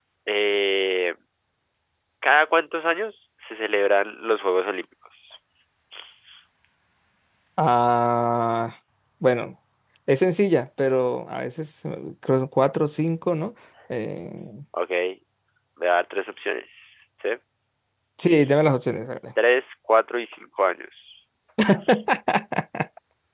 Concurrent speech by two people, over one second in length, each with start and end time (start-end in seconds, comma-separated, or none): none